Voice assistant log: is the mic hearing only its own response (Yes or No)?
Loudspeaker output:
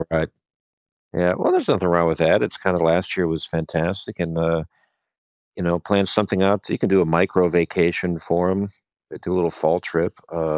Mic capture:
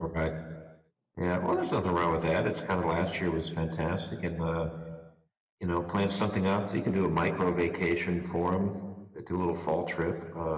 Yes